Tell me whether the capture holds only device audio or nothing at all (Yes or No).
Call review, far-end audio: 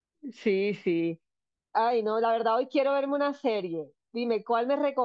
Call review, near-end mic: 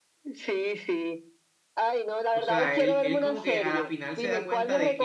No